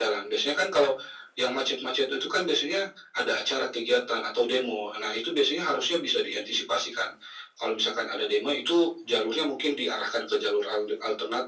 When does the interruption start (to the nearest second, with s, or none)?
none